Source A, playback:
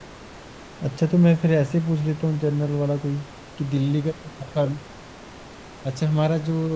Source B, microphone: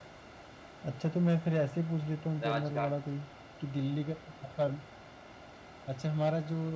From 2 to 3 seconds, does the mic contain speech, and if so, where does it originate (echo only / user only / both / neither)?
both